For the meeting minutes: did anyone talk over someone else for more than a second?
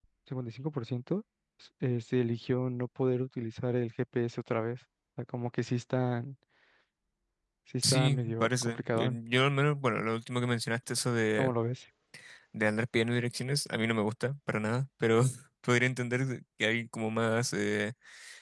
Yes, from 7.9 s

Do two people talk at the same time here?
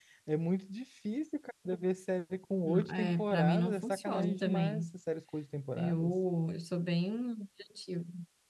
Yes, from 2.6 s

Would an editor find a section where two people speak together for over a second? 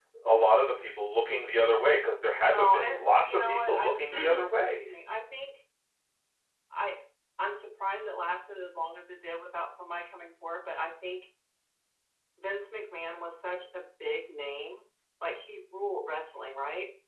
Yes, from 2.5 s

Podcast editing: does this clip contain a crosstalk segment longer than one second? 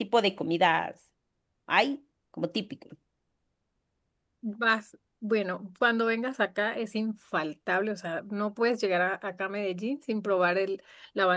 No

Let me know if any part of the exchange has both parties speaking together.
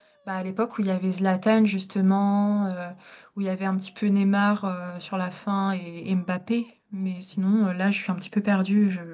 No

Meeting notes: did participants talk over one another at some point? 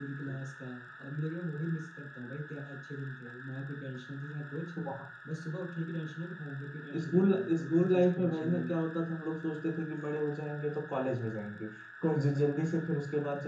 Yes, from 6.9 s

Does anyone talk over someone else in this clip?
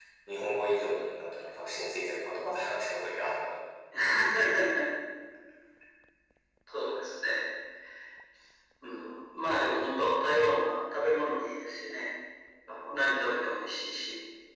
No

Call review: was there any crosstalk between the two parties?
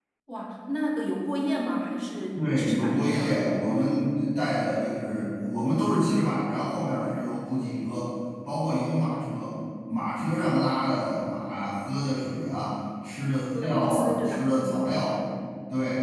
Yes, from 2.4 s

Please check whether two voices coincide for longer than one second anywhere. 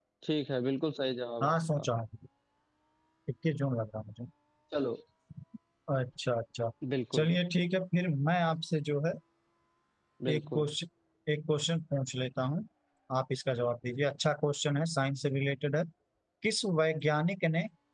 No

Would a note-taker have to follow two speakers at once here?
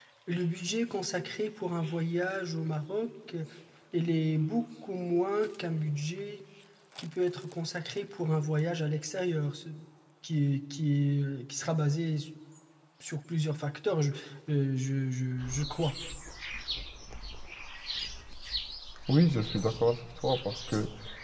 No

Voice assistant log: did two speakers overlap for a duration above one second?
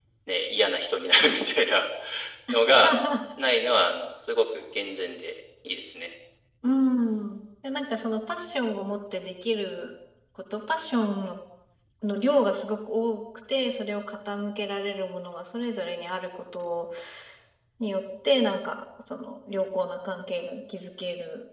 No

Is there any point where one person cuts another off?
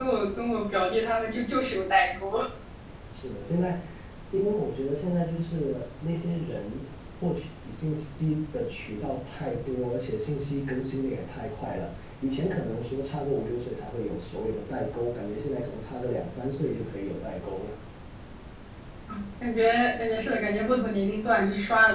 No

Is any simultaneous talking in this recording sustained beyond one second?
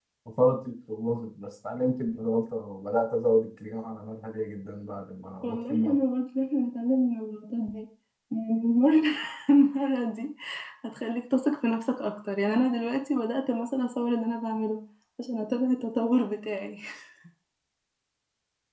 No

